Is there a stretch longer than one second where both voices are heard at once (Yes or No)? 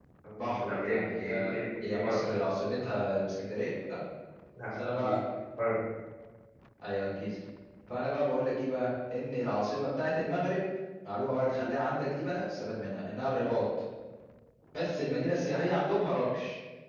Yes